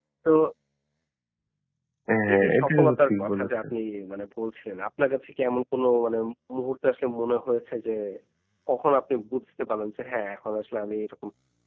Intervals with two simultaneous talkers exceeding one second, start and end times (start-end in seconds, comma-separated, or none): 2.3-3.6